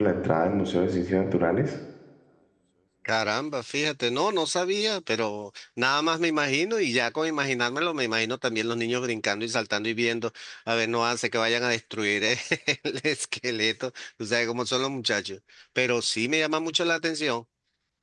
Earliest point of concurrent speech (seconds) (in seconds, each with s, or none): none